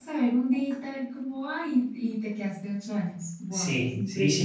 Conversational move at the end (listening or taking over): taking over